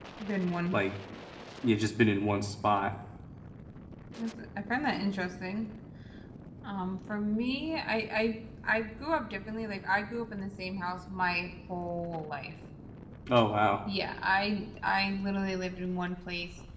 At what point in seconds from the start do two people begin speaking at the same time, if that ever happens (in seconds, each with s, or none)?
none